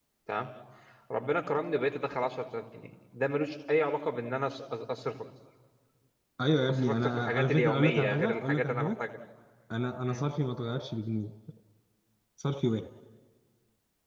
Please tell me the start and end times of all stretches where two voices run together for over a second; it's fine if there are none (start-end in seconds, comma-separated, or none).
6.7-8.9